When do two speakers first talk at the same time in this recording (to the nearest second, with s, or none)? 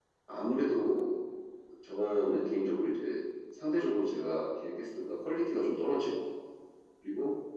none